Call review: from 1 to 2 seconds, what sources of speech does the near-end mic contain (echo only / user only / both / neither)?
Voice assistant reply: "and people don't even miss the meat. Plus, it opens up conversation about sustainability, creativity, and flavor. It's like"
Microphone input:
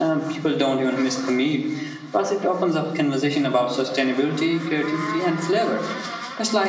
echo only